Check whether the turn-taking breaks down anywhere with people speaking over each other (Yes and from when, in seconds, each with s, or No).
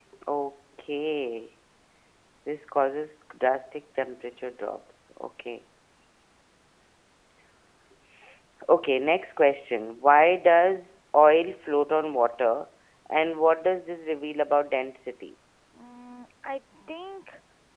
No